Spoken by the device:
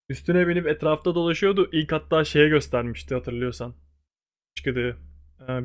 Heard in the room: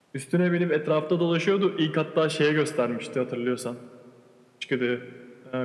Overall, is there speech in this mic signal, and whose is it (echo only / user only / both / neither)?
echo only